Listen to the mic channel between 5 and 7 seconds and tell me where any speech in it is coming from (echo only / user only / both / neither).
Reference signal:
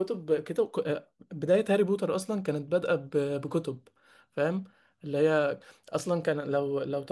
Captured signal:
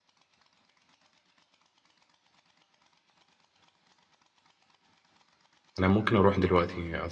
user only